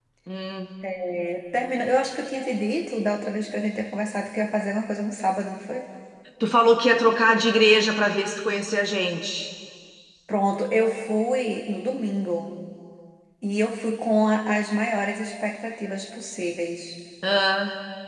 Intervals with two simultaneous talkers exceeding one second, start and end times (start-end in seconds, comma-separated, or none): none